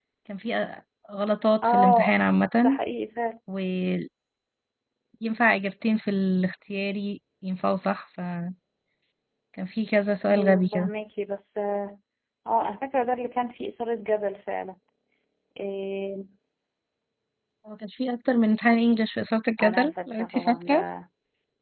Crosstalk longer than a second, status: present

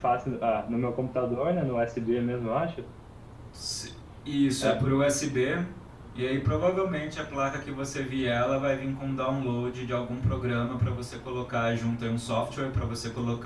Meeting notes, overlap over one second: none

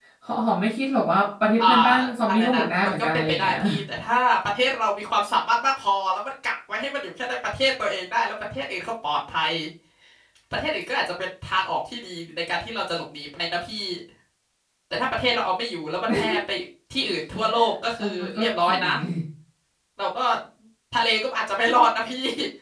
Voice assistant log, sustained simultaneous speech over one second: present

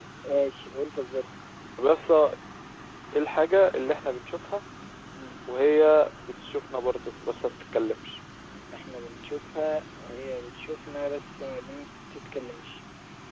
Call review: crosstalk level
none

